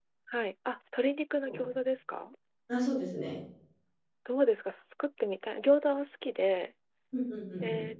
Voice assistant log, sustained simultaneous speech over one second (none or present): none